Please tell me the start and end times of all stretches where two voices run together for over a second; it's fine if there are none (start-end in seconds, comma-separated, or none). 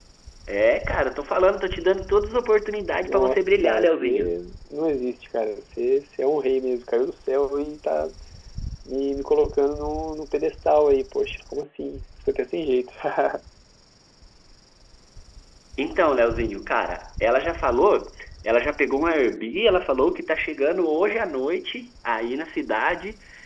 3.0-4.4